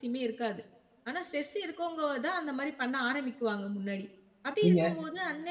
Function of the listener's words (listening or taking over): listening